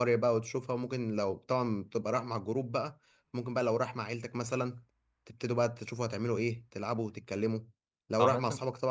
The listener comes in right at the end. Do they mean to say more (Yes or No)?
No